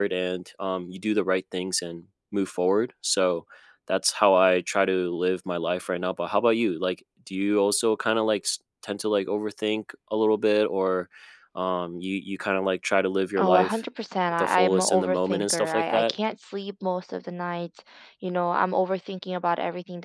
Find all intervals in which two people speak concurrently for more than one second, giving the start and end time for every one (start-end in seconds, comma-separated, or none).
14.4-16.1